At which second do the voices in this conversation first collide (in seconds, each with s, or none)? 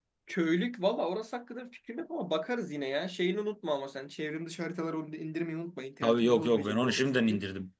6.0 s